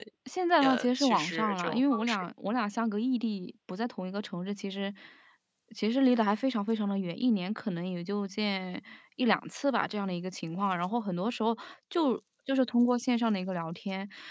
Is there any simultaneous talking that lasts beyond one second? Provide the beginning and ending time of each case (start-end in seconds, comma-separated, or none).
0.6-2.2